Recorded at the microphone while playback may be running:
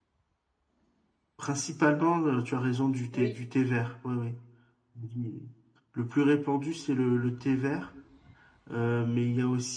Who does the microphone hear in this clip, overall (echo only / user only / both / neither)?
both